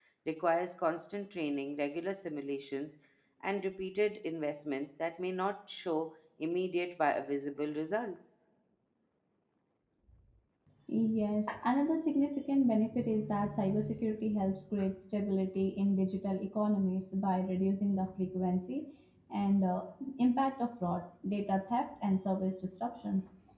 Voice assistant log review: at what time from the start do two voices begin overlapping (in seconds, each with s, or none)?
none